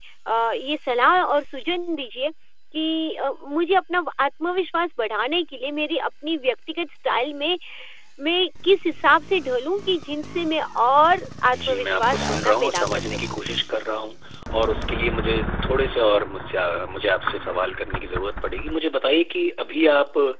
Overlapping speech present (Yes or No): Yes